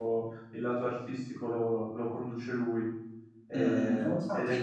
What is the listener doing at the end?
taking over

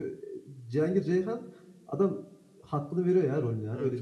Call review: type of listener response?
taking over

